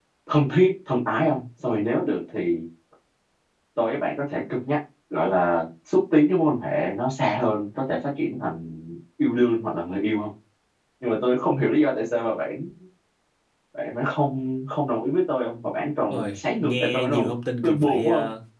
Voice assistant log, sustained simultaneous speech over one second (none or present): present